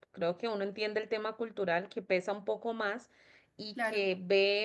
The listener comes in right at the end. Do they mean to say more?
No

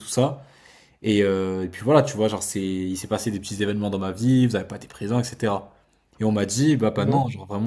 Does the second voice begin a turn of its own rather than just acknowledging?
No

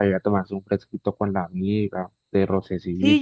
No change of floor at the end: No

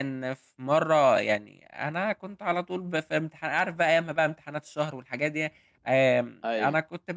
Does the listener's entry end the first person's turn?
No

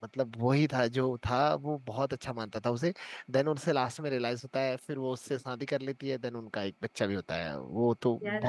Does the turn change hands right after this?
Yes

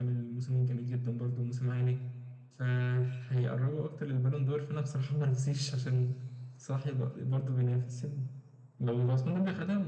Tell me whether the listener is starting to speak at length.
No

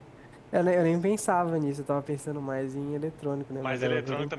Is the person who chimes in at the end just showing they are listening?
No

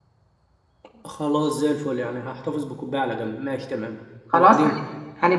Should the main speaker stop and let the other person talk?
Yes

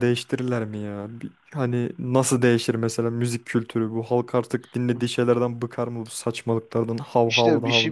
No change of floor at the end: No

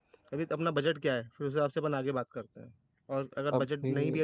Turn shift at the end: No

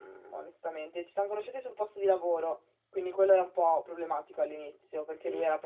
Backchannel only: Yes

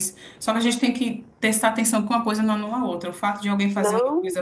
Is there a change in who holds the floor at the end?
No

